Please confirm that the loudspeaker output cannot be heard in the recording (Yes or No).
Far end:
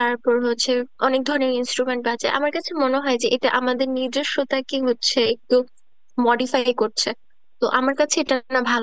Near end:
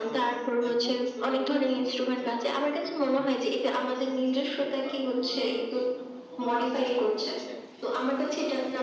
No